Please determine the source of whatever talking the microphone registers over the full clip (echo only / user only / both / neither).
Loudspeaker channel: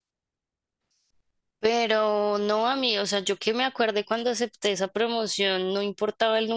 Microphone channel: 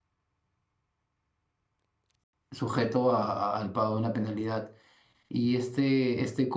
user only